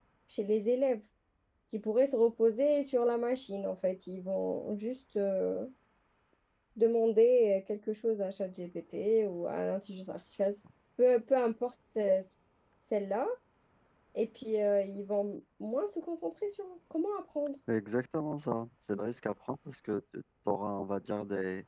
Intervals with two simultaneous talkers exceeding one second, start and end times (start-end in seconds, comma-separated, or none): none